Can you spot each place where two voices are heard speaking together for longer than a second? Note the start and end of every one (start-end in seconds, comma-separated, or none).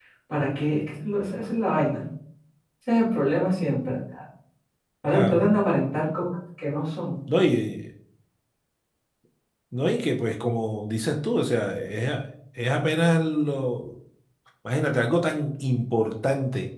none